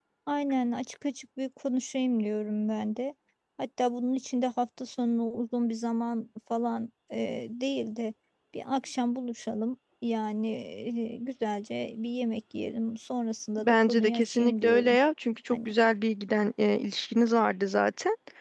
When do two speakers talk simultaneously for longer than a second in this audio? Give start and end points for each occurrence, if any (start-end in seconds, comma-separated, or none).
13.6-15.0